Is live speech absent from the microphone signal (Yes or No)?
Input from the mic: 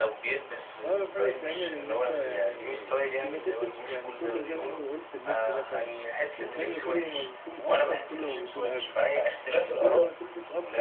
No